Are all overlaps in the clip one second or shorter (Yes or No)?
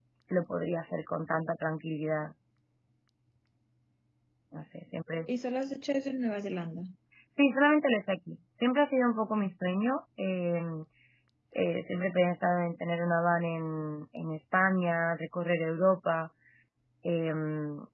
Yes